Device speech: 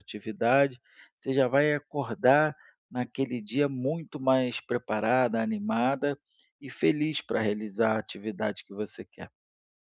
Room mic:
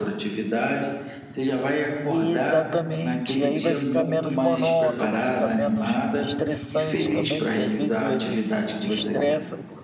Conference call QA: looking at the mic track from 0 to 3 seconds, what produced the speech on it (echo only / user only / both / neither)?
both